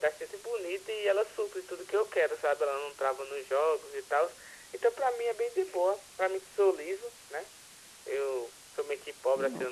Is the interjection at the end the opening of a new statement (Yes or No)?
No